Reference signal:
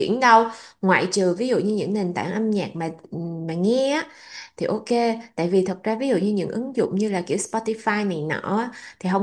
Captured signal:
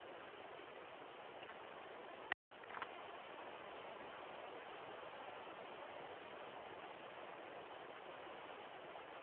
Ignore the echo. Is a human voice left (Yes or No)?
No